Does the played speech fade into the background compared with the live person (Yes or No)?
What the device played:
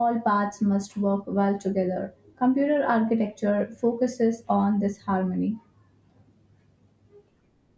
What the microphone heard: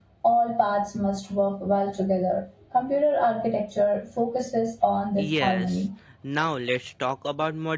No